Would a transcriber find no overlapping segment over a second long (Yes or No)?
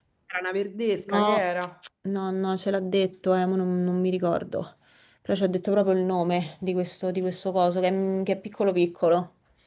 Yes